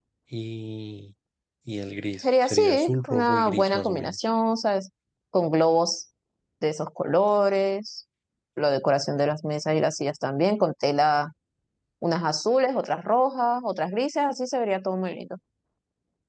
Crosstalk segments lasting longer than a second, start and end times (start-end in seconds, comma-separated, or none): 2.2-4.3